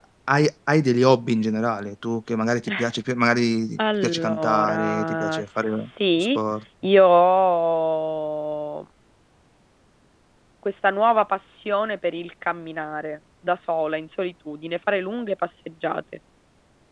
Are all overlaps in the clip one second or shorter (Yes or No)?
No